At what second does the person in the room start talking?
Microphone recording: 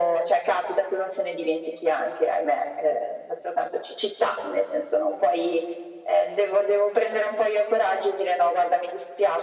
none

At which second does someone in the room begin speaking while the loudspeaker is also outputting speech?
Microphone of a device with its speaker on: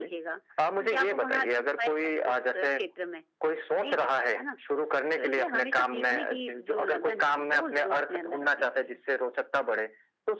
none

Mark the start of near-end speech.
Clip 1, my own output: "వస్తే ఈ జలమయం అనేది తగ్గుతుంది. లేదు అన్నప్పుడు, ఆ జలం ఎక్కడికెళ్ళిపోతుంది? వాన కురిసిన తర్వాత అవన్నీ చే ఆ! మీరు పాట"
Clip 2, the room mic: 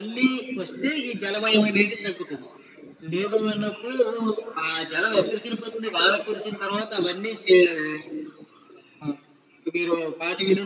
none

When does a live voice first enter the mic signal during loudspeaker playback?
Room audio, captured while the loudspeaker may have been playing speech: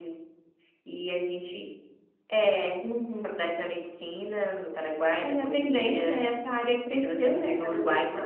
none

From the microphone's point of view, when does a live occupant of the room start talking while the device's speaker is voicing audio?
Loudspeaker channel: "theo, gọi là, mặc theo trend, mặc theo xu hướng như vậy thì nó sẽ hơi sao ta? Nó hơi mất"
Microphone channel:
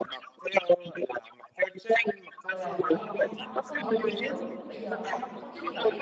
2.4 s

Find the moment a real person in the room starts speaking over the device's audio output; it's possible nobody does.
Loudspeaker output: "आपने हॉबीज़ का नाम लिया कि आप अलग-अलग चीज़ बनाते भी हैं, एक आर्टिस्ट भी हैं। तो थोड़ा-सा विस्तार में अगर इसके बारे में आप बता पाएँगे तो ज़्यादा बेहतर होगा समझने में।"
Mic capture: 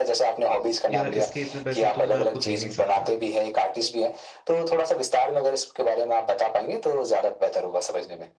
0.9 s

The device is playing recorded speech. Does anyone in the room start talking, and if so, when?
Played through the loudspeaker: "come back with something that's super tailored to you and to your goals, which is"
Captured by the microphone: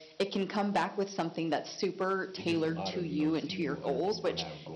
2.3 s

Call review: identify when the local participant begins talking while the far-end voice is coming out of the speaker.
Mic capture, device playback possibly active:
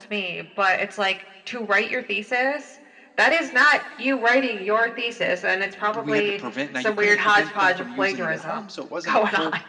6.0 s

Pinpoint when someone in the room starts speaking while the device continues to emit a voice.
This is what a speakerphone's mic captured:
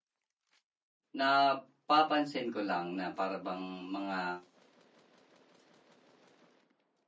1.1 s

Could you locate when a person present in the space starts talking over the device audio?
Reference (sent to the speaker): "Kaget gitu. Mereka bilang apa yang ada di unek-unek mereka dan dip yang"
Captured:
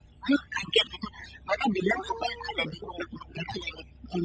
2.0 s

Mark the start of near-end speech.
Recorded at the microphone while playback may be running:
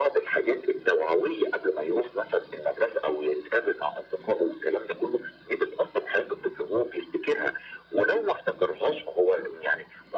none

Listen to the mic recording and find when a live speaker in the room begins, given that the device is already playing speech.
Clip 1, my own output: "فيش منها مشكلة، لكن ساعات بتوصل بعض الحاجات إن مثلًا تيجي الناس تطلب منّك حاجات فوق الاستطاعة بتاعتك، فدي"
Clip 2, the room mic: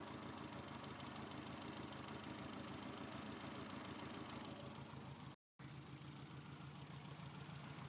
none

